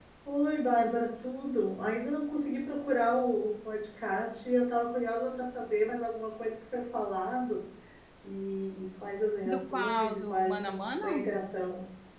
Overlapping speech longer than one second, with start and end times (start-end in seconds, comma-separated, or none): 9.5-11.3